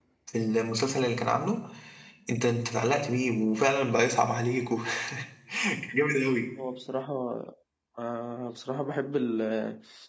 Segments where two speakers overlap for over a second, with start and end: none

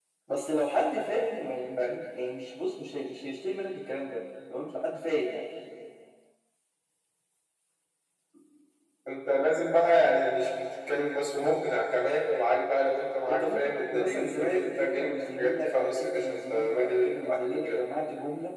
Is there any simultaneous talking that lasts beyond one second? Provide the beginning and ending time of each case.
13.3-17.8

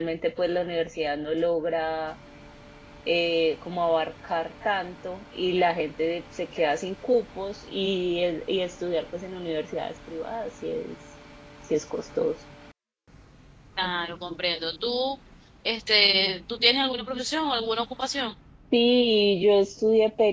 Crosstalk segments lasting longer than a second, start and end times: none

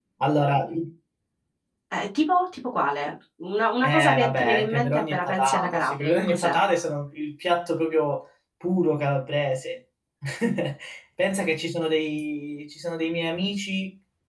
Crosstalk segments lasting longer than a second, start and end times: 3.8-6.6

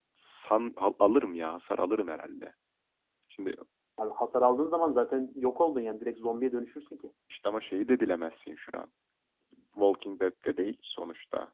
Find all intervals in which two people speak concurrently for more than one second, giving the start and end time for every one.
none

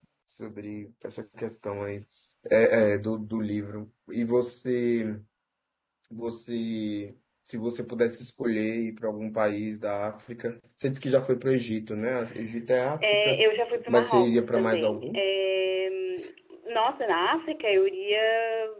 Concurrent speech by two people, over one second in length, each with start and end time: 13.8-15.2

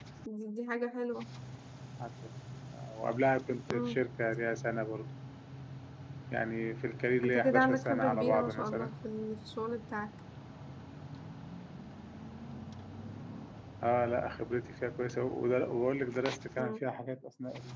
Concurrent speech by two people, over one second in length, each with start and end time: 7.2-8.9

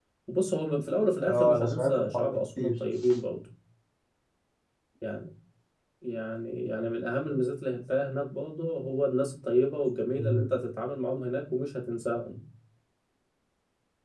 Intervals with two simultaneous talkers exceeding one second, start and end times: 1.3-2.7

